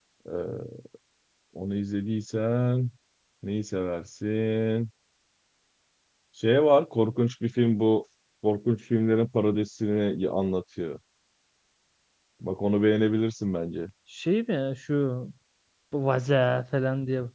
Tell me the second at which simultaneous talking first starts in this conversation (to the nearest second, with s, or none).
none